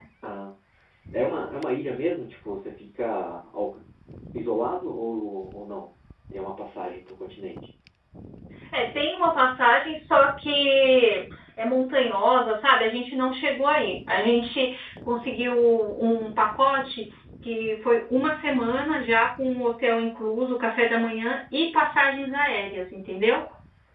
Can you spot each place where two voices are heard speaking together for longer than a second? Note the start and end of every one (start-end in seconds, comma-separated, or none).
none